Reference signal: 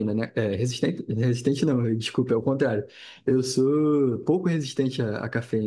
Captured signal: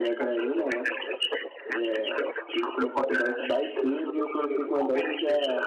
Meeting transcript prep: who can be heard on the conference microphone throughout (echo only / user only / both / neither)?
both